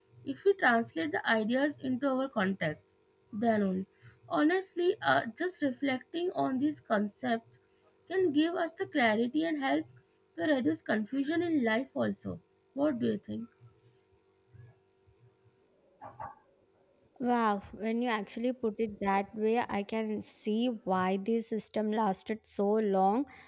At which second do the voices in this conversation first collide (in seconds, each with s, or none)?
none